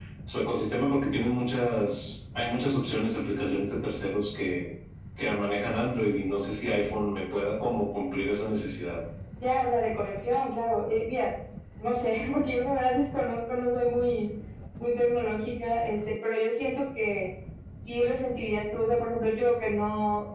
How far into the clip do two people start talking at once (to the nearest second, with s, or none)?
none